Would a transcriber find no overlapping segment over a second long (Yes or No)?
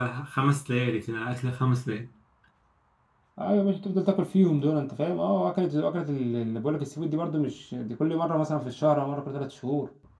Yes